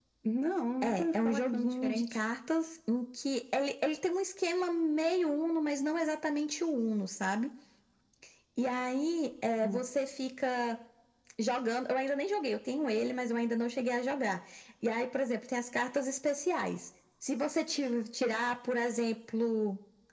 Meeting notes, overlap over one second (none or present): present